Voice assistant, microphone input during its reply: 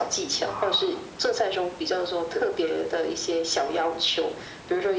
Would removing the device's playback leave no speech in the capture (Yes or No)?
No